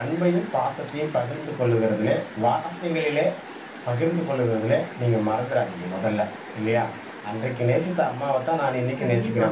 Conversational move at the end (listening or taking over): listening